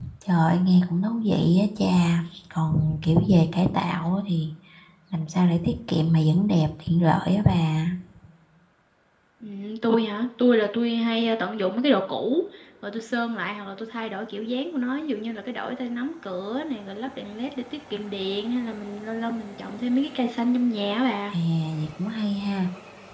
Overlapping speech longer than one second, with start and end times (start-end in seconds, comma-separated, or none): none